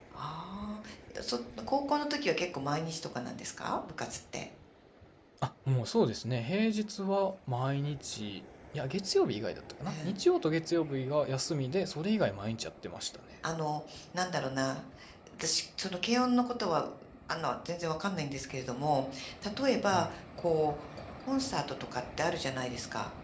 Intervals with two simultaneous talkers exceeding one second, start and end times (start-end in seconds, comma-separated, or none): none